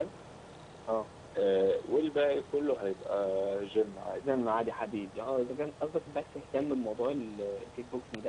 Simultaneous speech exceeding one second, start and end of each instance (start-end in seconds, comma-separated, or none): none